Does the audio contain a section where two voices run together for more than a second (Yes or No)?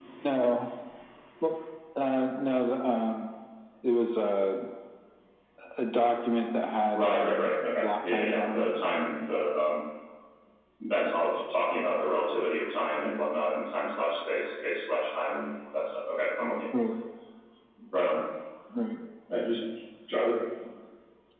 Yes